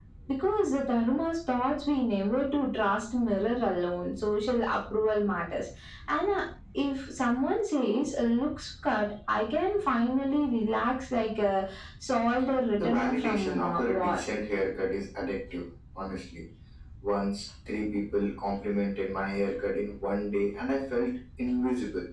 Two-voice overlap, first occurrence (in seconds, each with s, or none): 12.8 s